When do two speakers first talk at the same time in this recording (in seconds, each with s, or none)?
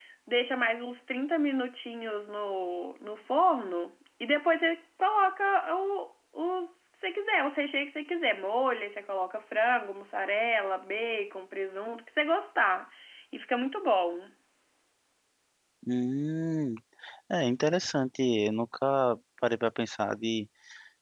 none